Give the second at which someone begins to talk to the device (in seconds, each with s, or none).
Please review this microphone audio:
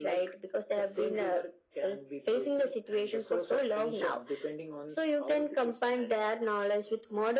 none